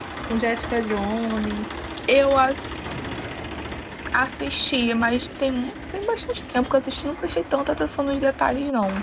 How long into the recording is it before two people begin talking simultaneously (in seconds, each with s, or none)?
none